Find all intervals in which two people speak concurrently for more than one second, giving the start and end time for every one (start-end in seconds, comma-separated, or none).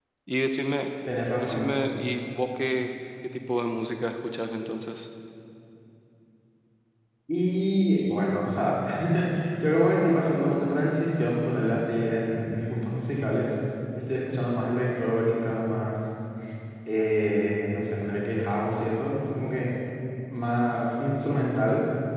none